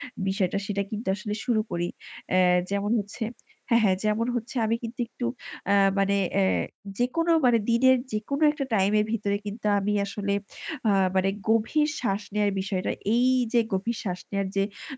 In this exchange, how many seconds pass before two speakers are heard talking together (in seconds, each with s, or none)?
none